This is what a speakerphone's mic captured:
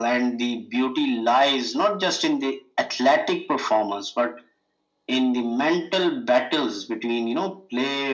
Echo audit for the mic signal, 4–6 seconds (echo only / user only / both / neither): echo only